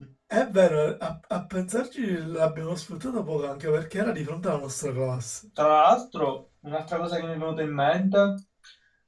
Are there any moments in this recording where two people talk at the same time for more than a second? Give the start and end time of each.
none

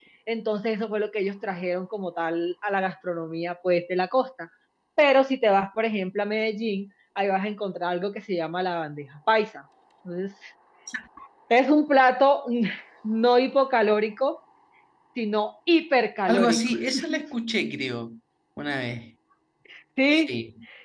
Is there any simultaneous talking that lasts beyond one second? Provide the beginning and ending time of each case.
none

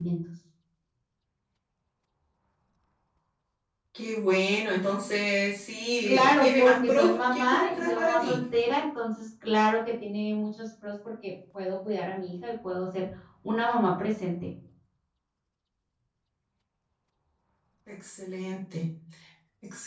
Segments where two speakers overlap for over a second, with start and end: 6.0-8.4

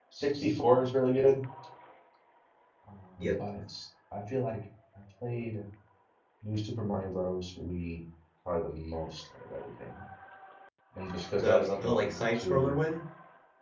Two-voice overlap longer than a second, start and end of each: 11.4-12.8

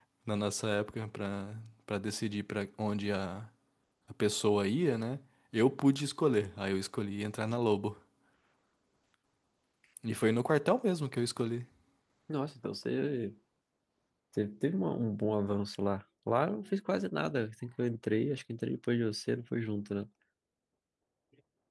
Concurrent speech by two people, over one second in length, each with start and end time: none

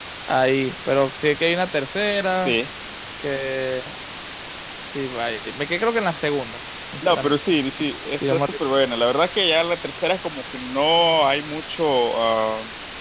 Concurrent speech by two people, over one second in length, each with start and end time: none

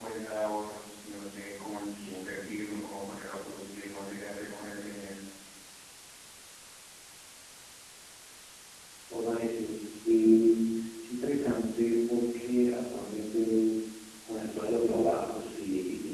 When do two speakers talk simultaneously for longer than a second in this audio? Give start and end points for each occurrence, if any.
none

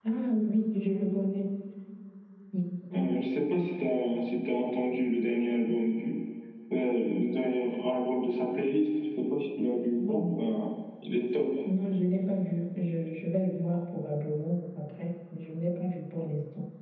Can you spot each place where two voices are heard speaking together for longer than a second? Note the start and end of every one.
none

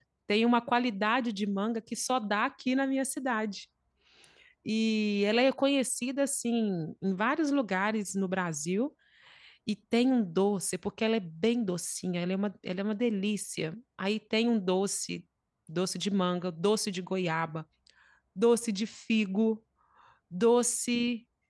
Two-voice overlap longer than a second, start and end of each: none

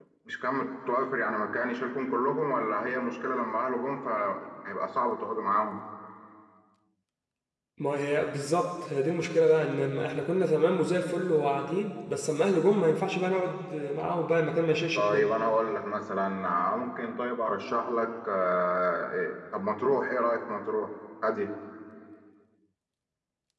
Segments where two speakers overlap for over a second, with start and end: none

